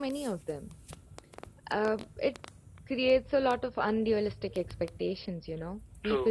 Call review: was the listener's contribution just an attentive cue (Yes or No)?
Yes